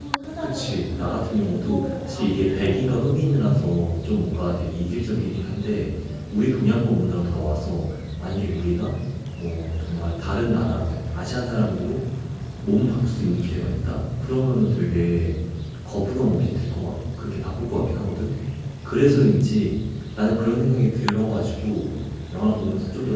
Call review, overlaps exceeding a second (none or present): present